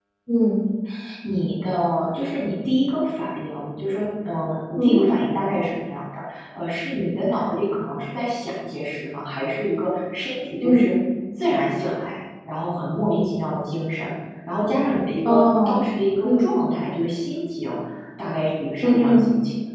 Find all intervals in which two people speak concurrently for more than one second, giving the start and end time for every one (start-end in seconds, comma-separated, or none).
none